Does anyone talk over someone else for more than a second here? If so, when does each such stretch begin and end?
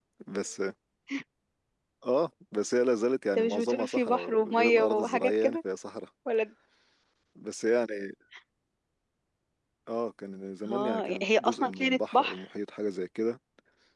3.4-5.6, 10.7-12.4

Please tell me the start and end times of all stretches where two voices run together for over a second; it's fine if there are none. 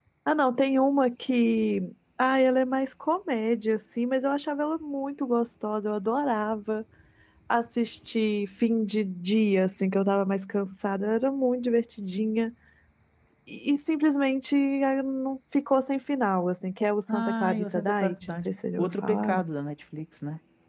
17.1-19.4

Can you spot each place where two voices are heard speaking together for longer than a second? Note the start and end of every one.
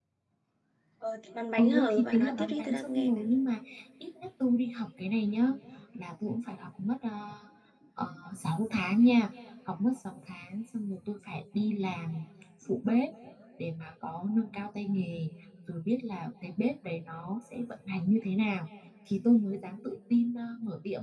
1.6-3.2

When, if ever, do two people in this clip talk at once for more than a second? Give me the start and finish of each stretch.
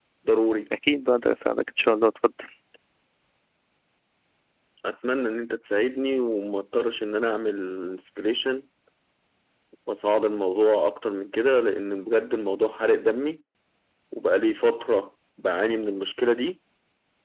none

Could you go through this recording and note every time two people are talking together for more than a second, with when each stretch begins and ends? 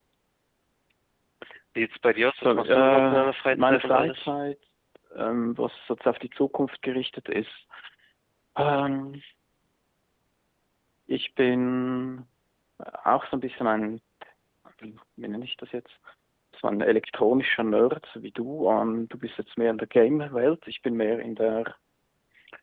2.4-4.4

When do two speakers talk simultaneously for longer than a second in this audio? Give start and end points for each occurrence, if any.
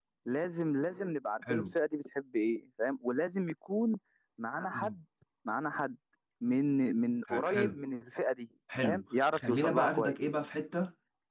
8.8-10.2

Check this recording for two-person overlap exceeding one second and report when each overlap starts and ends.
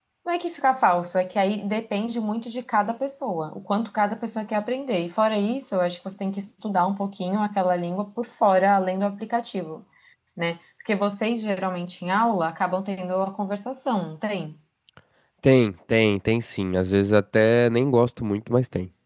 none

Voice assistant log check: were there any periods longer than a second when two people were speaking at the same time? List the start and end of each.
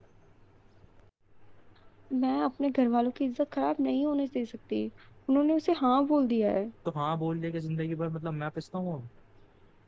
none

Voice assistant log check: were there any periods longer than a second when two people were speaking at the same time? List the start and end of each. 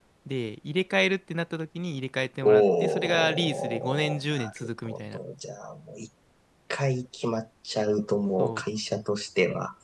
2.4-5.2

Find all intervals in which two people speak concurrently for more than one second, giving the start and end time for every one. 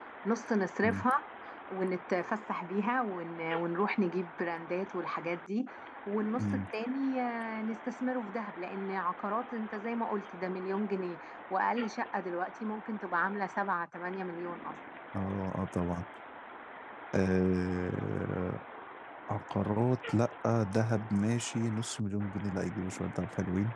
none

